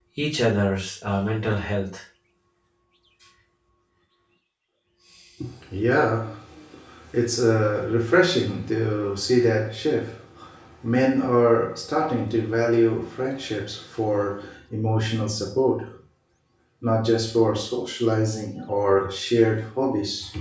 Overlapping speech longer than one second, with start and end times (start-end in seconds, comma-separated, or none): none